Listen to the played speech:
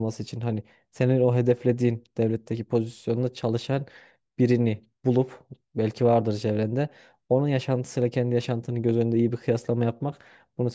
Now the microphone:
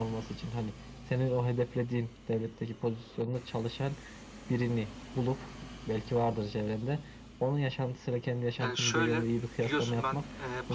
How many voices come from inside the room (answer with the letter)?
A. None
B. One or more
B